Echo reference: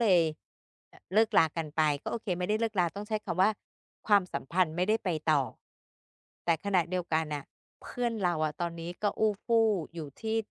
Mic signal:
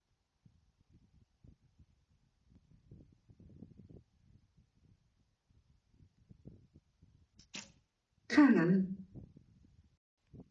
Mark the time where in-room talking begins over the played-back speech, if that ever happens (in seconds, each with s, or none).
8.3 s